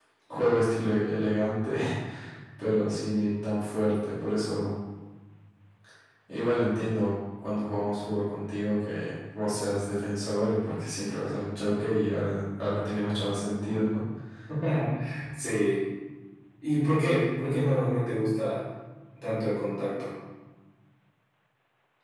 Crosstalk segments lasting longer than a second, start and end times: none

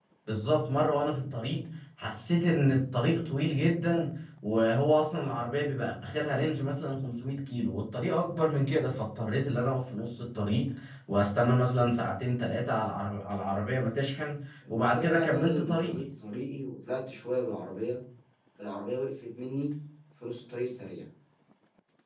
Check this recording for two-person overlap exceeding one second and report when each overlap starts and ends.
14.7-16.0

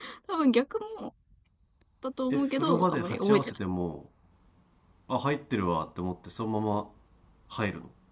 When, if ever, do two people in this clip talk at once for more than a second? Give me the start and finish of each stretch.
2.3-3.5

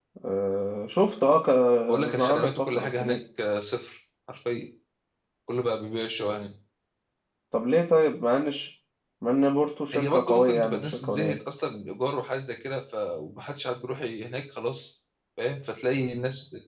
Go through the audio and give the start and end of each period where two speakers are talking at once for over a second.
1.9-3.2, 9.9-11.4

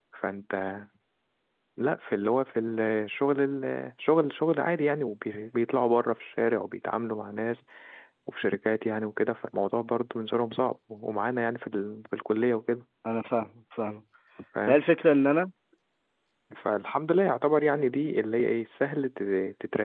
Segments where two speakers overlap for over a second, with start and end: none

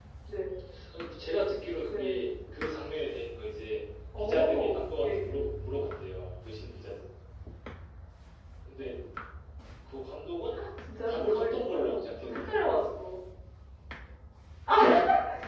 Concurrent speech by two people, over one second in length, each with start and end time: 4.2-5.4, 11.1-12.6

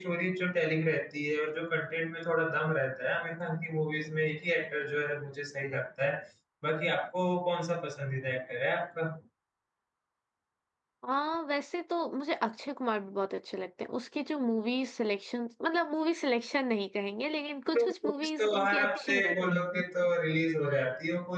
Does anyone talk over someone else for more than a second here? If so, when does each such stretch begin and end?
17.8-19.6

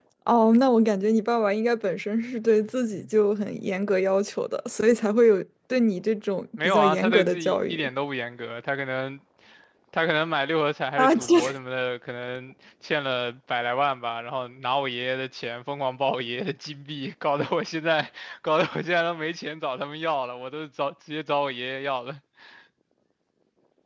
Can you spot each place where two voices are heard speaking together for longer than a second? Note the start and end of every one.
6.6-7.9

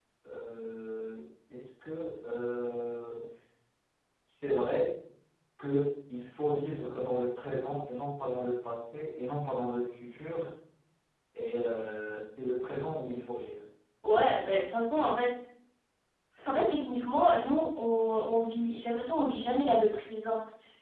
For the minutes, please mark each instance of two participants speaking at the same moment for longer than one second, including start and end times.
none

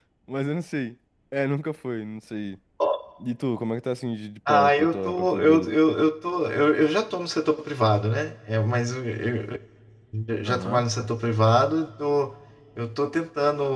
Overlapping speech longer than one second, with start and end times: 4.5-5.7

